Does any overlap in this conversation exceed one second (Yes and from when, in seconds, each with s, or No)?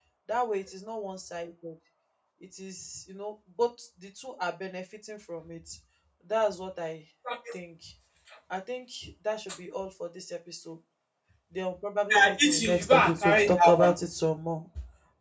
Yes, from 12.1 s